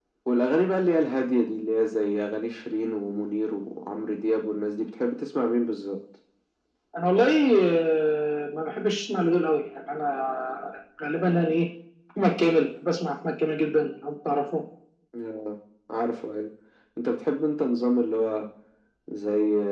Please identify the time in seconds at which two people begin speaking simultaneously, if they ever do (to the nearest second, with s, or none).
none